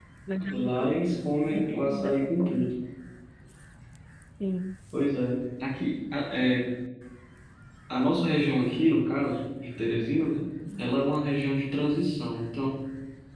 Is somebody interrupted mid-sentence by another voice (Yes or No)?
Yes